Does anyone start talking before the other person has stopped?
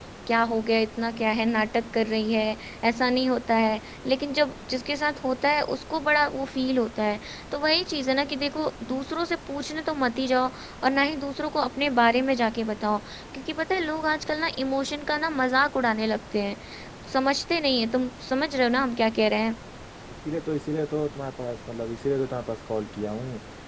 No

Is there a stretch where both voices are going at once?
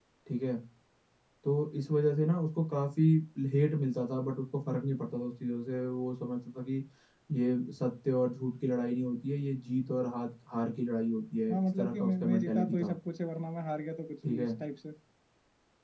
Yes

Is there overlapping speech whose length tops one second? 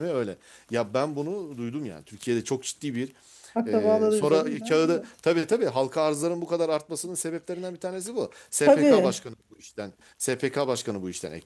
Yes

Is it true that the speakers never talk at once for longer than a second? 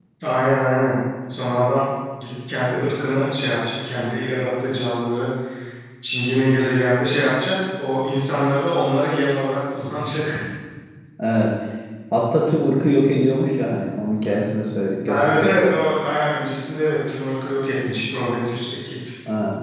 Yes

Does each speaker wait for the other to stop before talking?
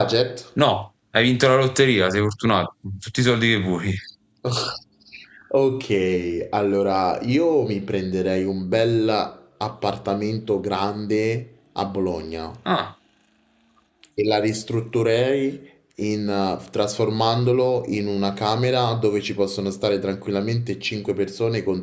Yes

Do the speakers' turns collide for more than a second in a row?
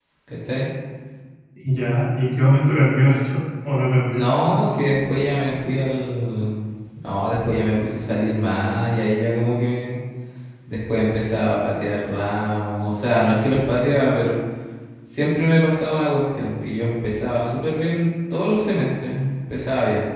No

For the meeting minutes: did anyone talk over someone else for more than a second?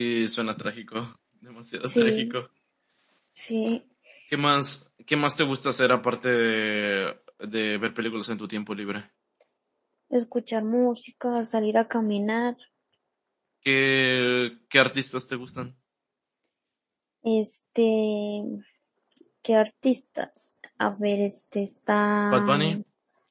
No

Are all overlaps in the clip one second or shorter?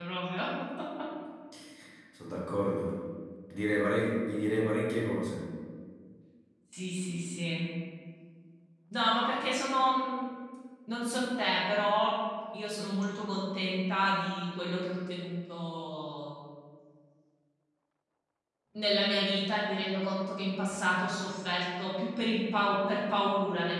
Yes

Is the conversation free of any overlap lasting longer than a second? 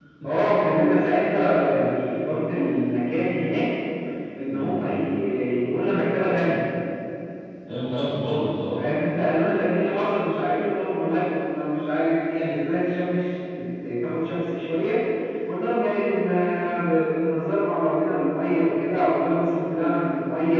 Yes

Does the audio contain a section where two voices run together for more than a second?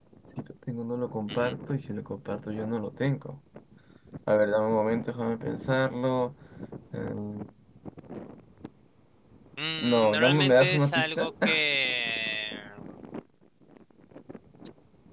Yes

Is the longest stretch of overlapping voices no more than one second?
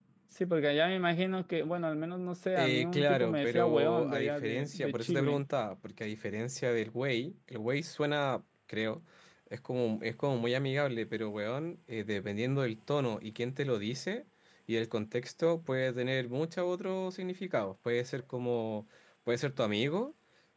No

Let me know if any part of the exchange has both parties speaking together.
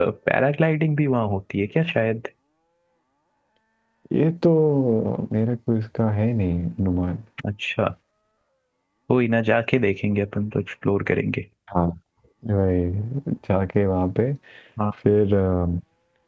No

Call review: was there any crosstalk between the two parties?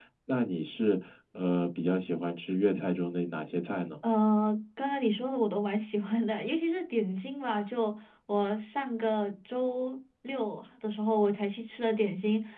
No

